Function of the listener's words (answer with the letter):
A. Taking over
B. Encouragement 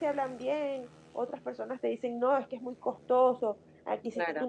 B